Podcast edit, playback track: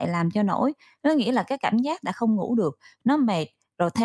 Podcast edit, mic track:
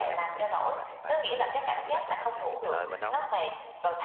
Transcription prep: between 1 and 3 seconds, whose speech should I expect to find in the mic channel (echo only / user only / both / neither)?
both